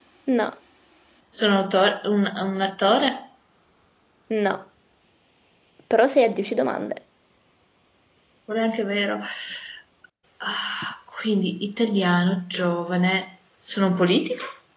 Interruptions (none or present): none